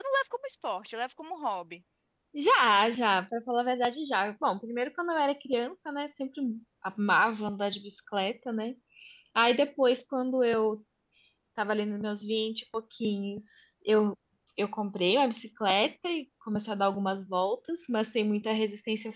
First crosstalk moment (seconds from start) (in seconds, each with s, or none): none